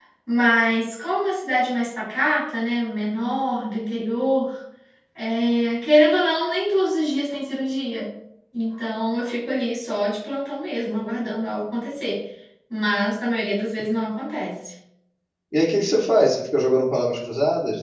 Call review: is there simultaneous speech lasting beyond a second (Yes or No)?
No